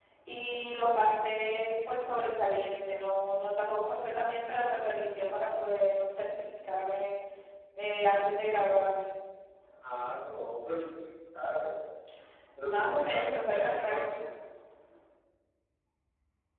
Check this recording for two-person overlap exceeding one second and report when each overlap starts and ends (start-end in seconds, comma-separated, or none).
12.6-14.1